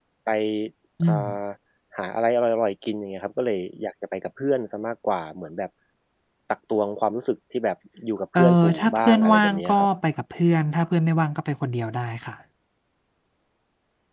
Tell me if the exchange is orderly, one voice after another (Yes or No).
No